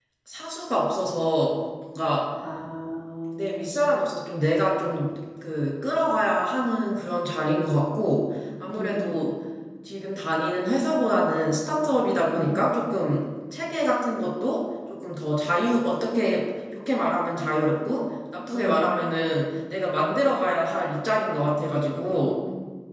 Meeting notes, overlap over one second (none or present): none